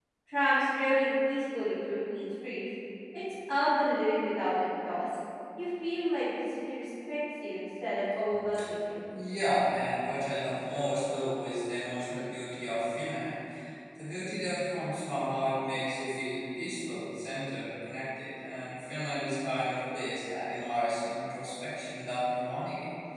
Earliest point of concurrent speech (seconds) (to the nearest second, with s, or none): none